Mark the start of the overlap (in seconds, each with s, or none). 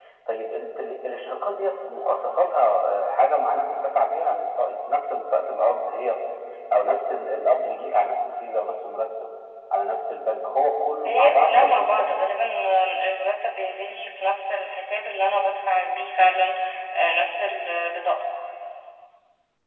11.0 s